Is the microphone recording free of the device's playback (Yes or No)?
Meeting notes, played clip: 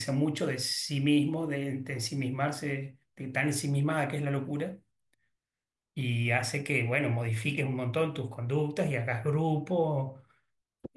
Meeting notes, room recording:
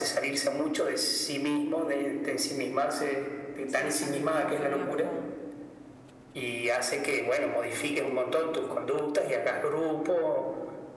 No